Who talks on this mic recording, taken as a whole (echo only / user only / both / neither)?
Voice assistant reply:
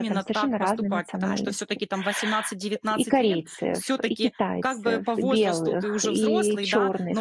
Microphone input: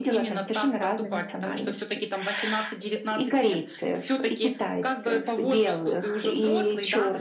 echo only